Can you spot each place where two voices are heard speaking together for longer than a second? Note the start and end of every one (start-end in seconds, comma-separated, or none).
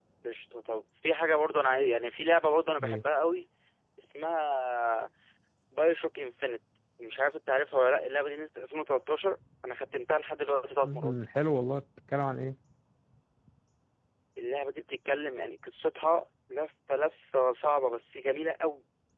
none